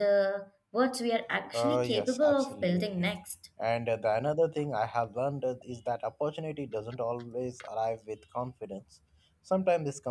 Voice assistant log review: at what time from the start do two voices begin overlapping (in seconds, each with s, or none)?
1.5 s